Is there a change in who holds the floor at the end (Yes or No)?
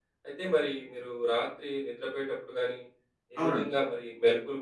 No